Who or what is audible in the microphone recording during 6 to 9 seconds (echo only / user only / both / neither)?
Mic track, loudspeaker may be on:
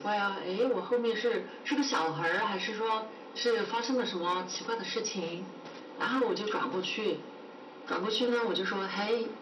echo only